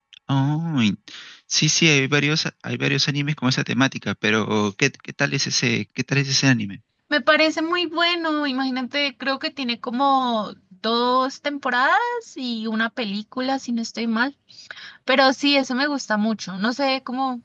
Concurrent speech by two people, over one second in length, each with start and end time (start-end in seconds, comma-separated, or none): none